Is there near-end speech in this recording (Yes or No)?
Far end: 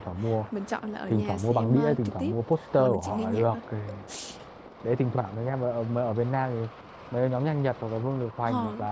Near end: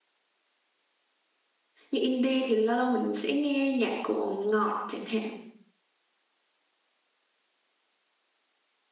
Yes